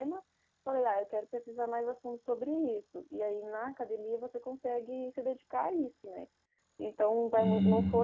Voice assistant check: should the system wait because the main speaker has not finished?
Yes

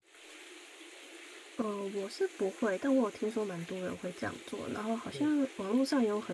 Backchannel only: Yes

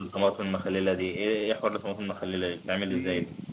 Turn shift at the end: Yes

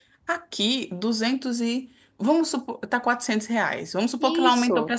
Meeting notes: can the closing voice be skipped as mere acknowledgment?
Yes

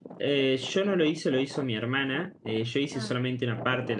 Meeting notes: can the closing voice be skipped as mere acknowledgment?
Yes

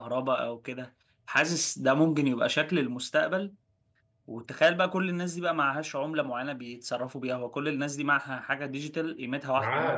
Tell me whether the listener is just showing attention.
No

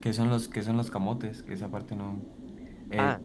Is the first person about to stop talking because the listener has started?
Yes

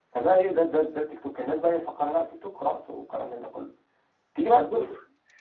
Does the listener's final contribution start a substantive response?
Yes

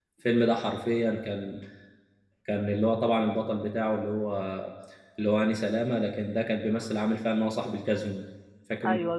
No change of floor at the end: No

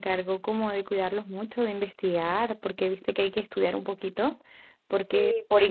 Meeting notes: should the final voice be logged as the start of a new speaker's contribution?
Yes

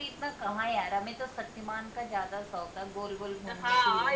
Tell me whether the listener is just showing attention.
No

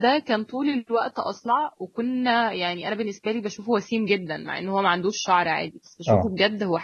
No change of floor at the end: Yes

